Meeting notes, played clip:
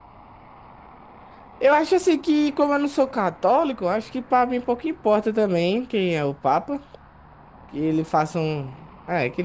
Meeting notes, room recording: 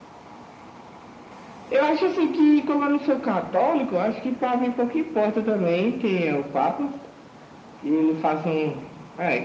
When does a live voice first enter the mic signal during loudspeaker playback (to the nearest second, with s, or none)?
none